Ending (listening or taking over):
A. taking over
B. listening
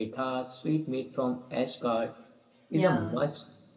B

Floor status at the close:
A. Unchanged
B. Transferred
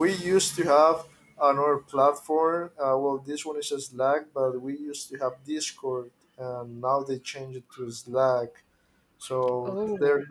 A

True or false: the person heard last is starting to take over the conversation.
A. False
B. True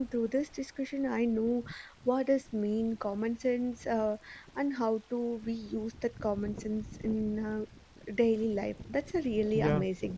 B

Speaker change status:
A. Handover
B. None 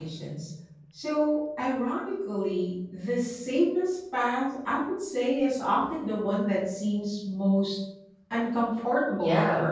A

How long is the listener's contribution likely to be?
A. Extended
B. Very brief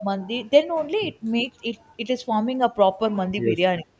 A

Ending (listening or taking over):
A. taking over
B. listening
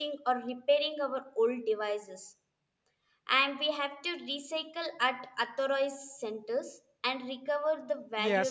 A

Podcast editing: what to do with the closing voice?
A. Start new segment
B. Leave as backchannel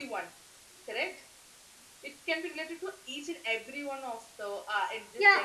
A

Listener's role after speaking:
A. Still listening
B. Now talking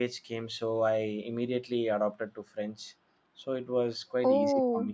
B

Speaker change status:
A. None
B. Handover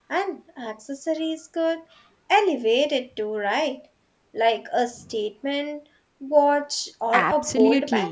B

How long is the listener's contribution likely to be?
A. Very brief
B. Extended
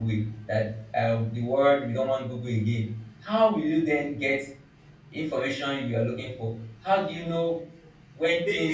A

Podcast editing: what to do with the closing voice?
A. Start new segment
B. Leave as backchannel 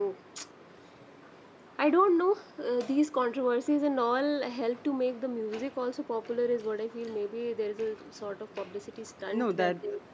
A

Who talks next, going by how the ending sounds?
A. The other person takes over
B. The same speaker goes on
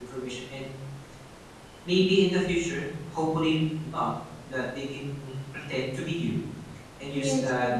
B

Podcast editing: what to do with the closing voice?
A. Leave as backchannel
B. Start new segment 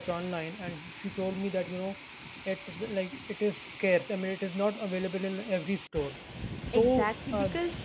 B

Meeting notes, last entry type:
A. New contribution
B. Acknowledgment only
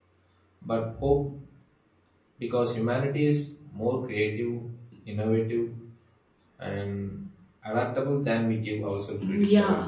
A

